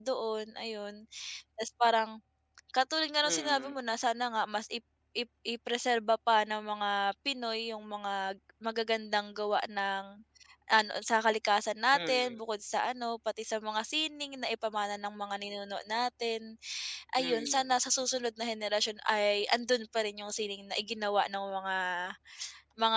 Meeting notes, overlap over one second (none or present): none